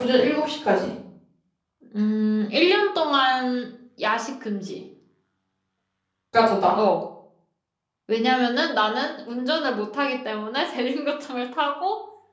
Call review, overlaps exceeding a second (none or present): none